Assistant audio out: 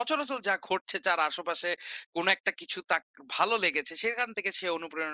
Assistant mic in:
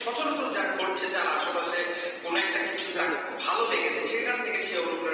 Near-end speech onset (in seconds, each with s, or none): 2.9 s